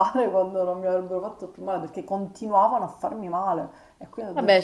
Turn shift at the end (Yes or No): Yes